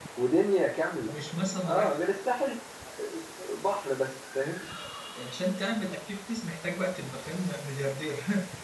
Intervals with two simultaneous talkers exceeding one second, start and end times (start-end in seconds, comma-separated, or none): none